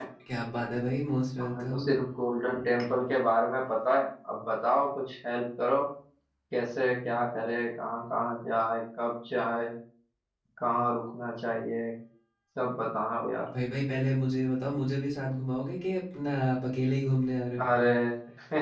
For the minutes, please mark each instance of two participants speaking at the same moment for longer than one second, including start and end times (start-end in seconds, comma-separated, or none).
none